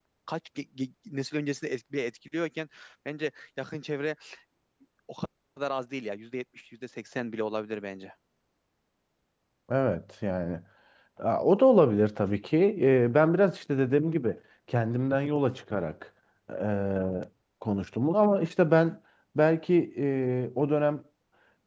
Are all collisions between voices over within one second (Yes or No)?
Yes